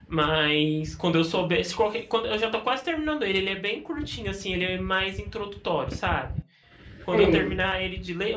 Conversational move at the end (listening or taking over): listening